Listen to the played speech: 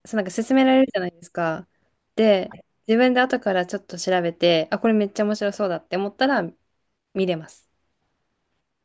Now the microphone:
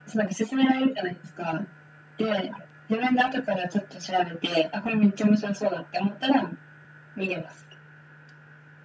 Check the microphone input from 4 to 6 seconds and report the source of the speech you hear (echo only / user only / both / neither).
echo only